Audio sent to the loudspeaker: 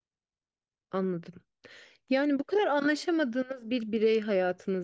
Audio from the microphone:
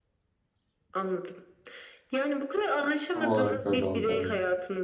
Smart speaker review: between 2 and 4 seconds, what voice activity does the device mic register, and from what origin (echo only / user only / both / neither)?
both